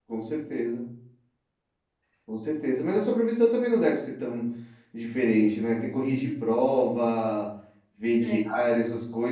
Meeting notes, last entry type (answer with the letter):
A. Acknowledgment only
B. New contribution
A